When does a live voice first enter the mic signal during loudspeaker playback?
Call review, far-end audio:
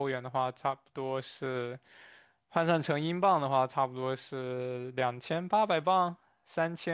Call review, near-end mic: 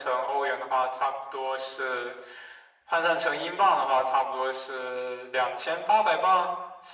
none

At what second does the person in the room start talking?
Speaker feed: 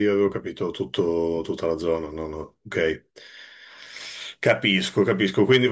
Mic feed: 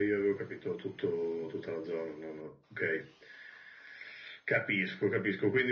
none

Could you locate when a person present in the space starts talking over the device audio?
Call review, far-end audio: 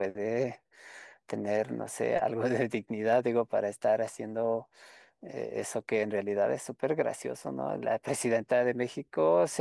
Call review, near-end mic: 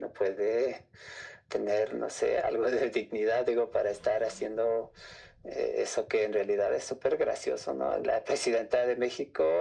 none

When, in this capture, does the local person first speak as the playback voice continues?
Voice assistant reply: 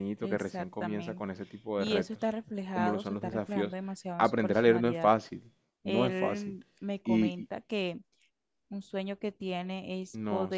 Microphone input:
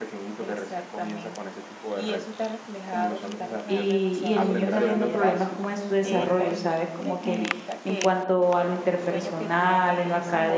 4 s

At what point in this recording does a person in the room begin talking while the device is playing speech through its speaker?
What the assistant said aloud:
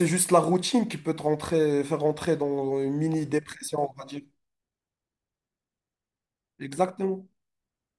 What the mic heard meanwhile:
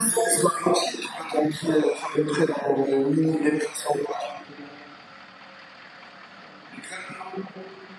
none

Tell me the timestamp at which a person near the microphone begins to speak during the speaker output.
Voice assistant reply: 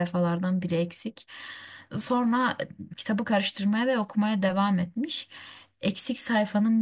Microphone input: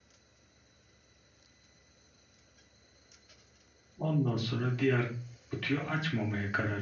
4 s

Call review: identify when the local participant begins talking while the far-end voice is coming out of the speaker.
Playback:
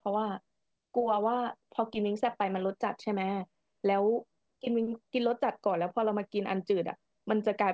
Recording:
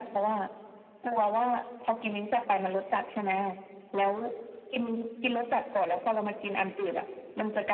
none

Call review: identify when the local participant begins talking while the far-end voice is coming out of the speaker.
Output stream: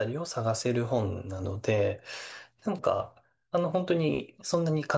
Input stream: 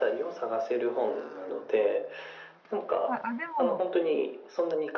3 s

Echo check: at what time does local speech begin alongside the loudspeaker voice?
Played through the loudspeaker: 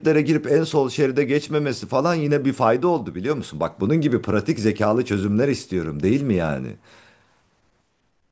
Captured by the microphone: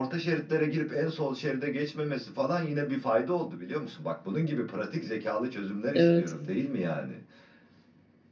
6 s

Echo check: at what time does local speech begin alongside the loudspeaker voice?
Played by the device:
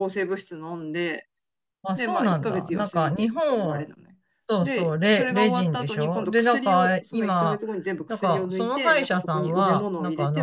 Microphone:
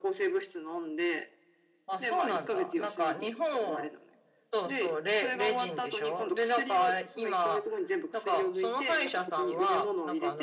none

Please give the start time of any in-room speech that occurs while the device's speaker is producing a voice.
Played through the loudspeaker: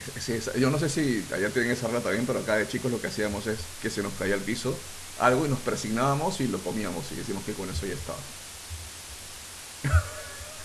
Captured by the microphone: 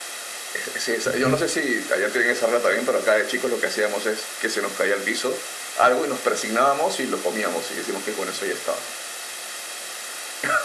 1 s

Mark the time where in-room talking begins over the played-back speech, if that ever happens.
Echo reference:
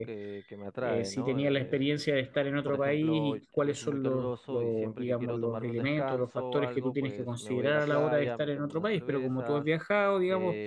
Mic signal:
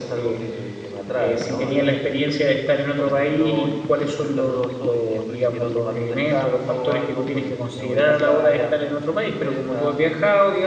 none

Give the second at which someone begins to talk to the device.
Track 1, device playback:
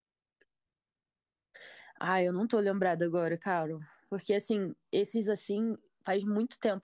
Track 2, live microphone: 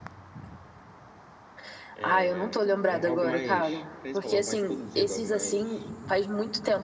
2 s

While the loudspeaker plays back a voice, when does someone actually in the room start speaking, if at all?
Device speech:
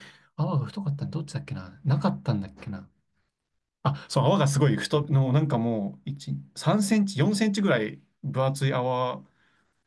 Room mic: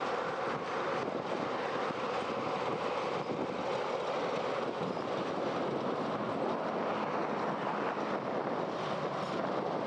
none

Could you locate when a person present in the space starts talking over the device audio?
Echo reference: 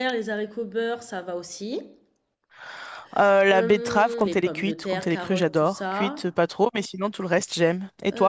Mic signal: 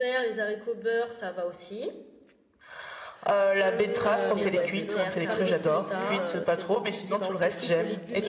4 s

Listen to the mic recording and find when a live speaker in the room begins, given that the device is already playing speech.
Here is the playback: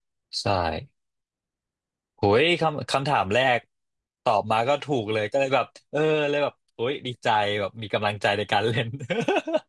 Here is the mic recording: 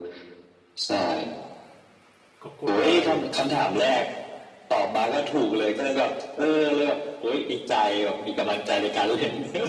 2 s

